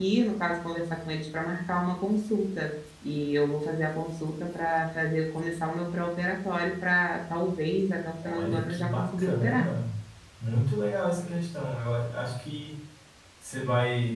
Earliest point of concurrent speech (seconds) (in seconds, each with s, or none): 8.2 s